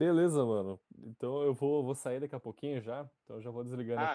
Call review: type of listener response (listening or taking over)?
taking over